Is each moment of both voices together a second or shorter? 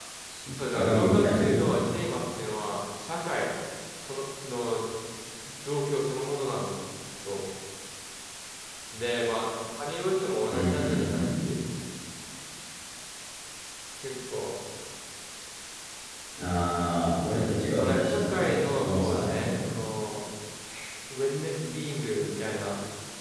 No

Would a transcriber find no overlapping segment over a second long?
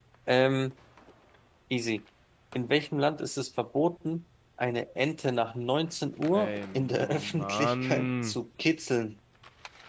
No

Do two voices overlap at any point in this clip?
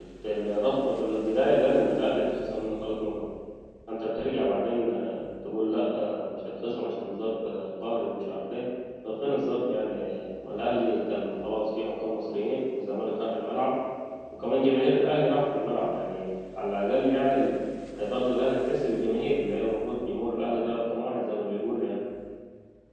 No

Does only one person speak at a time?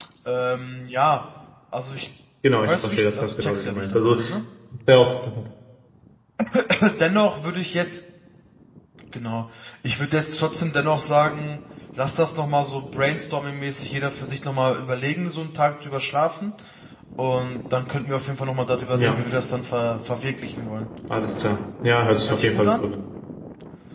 No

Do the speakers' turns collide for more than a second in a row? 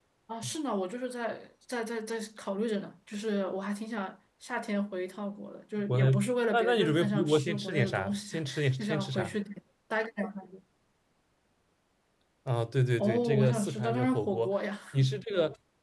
Yes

